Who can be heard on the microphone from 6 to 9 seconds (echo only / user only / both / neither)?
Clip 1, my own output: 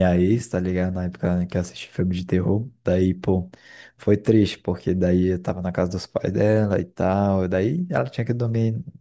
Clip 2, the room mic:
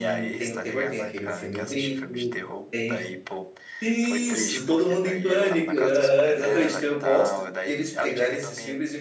both